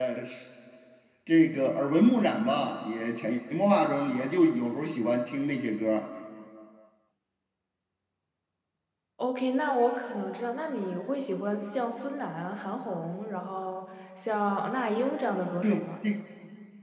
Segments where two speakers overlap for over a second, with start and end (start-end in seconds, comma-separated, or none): none